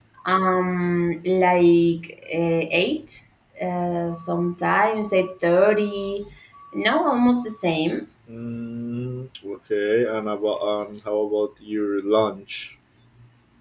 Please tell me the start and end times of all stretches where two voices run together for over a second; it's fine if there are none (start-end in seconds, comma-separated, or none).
none